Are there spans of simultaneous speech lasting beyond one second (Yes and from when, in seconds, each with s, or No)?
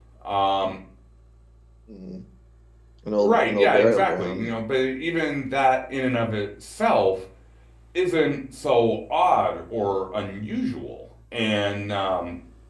Yes, from 3.2 s